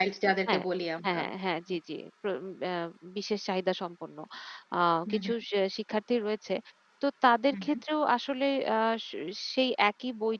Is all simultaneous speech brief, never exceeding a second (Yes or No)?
Yes